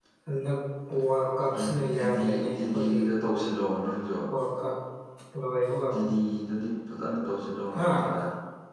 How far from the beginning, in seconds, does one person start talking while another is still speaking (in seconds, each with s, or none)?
1.6 s